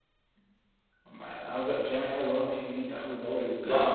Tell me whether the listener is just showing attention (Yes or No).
No